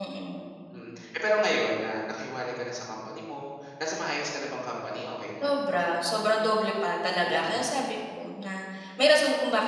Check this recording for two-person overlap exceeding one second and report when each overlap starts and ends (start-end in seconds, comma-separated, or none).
none